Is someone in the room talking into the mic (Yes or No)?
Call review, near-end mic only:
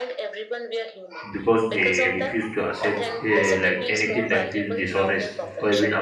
Yes